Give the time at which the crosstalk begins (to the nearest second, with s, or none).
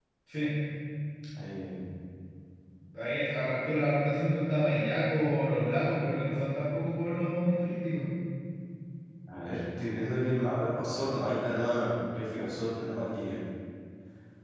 none